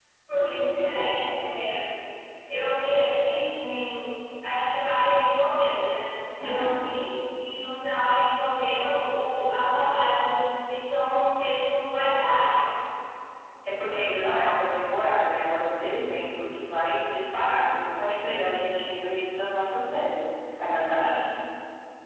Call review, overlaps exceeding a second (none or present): present